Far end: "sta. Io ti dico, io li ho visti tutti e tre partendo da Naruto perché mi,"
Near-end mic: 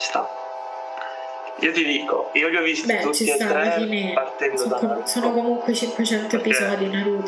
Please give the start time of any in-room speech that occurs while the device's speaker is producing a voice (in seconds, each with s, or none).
2.8 s